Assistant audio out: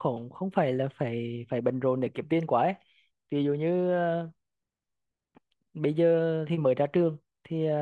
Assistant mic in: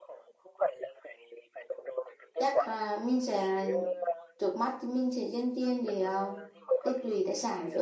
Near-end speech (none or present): present